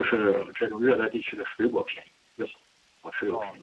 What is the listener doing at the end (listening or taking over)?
taking over